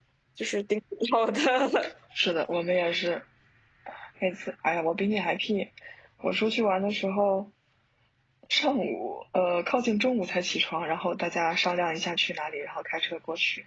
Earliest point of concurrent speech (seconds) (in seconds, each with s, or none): none